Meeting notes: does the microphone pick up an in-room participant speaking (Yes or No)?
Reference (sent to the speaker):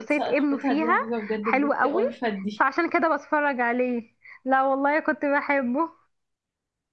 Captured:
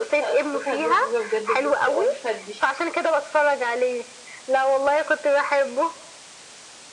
No